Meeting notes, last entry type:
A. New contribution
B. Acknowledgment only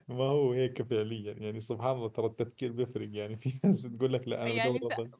A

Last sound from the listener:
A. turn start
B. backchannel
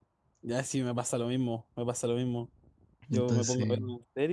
B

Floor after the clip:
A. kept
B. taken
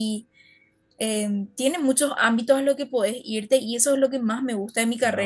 A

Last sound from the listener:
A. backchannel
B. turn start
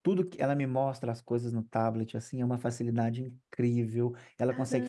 A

